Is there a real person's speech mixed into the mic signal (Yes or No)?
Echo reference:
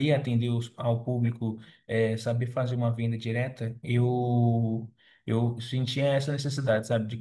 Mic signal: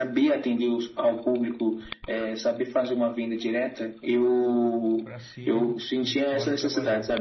Yes